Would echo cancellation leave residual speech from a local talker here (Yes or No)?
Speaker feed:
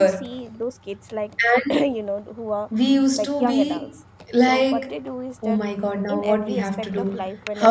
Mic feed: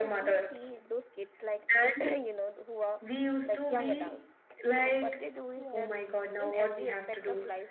Yes